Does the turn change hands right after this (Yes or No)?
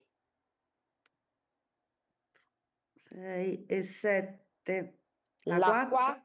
Yes